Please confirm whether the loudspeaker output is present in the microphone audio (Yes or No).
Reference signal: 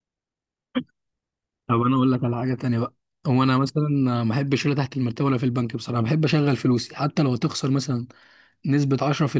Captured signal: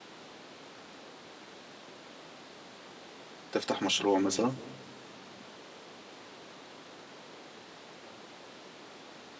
No